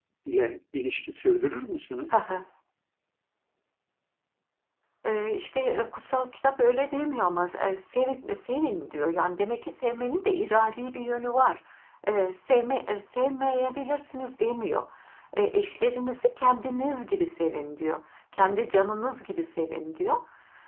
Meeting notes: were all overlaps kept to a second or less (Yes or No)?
Yes